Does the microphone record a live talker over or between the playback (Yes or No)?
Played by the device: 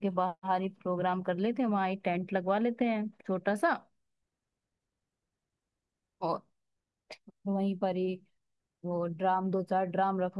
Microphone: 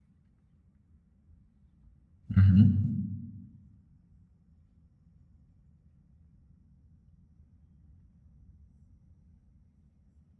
Yes